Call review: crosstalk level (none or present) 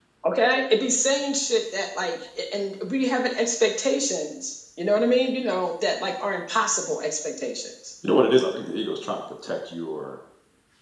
none